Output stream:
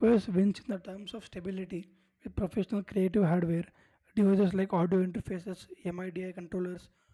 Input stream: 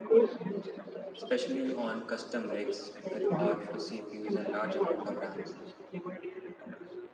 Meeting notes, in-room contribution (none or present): present